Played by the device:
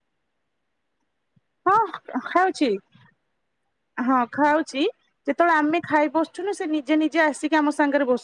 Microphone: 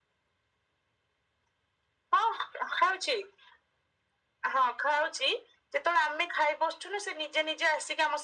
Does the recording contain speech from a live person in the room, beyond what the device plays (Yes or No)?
No